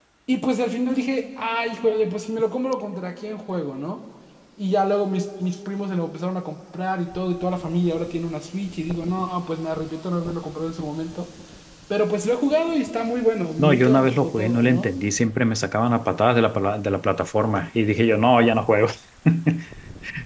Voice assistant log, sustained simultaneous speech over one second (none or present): present